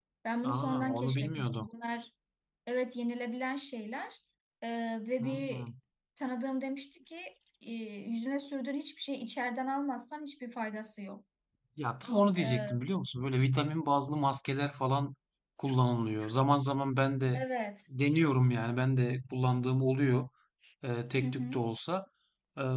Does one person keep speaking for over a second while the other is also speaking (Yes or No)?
Yes